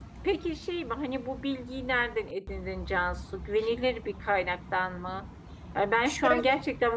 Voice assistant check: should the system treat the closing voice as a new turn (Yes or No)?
No